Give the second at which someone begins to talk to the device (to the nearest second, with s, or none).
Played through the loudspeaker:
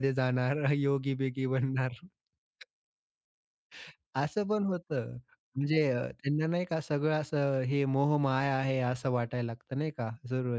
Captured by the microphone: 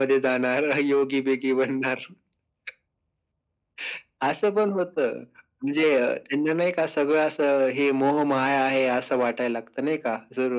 none